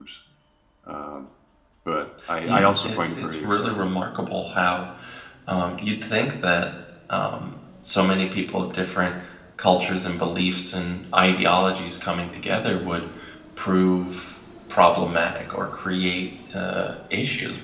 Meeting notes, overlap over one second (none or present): present